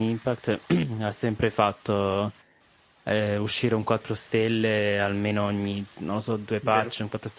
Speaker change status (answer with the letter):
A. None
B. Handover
A